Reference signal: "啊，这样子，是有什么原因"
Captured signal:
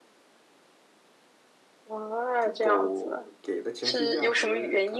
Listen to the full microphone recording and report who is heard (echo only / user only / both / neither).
both